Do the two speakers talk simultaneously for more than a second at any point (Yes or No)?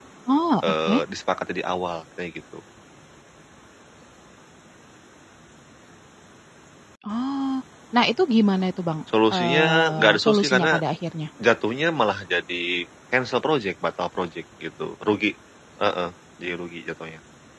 Yes